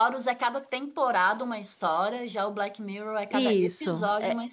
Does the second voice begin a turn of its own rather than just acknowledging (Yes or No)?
Yes